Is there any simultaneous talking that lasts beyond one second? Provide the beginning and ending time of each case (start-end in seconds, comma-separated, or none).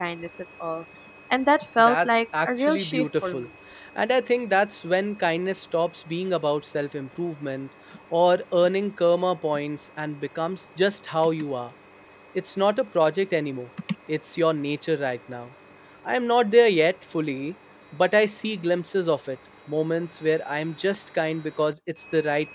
1.8-3.5